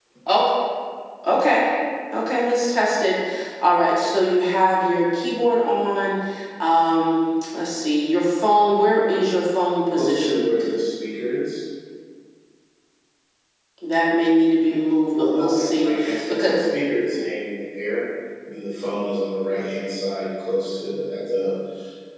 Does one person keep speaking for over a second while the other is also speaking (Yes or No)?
Yes